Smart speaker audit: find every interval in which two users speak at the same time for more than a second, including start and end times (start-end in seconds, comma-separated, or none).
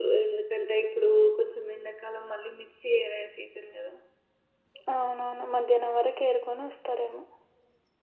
none